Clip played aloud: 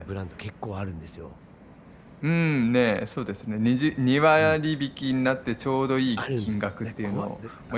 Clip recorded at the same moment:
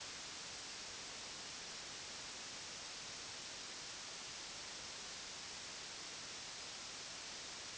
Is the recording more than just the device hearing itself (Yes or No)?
No